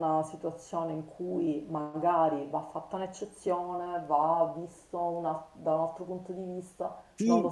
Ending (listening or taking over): taking over